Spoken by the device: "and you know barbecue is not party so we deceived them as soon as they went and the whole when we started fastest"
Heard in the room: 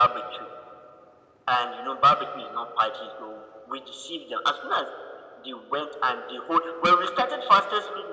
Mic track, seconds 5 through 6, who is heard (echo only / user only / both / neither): echo only